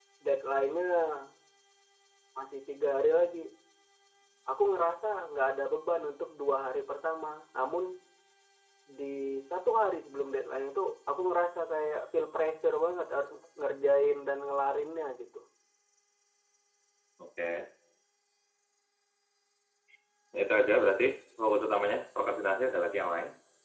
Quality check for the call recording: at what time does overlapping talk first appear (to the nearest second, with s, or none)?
none